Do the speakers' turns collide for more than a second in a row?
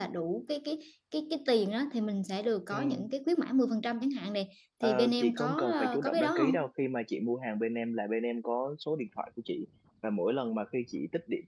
Yes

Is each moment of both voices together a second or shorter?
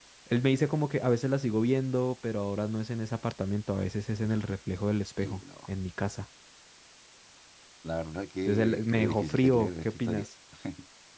No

